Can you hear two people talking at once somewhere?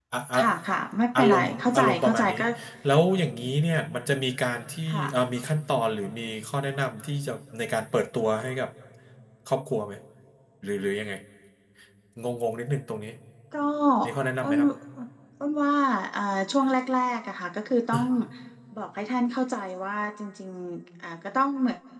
Yes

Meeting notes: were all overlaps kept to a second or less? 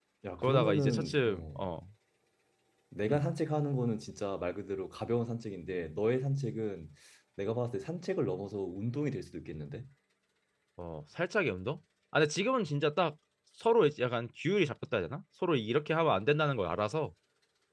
No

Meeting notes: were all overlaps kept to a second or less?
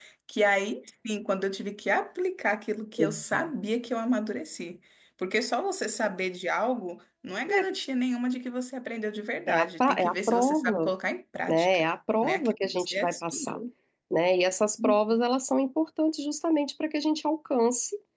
No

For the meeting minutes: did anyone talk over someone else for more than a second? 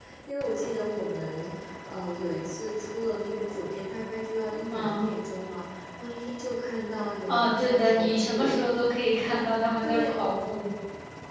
Yes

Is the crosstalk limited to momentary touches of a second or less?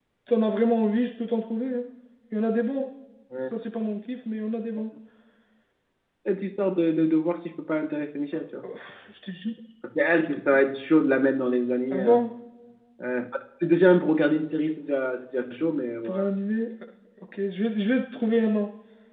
Yes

